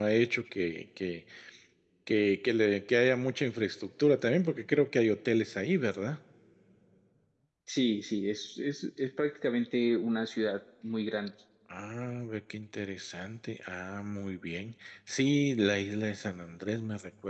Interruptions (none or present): none